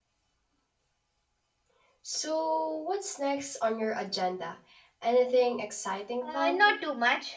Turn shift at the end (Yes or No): Yes